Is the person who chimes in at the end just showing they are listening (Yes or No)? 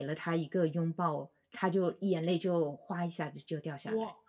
No